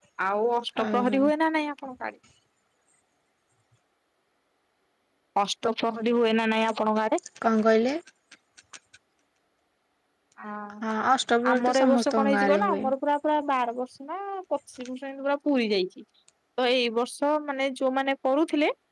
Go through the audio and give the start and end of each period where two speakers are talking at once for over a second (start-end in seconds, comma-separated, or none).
11.5-12.8